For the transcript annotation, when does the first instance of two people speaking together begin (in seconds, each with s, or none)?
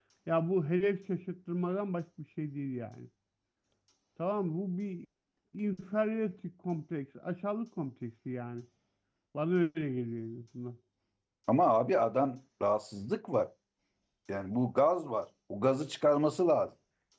none